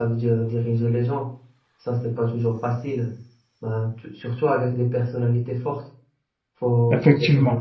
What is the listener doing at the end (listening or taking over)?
listening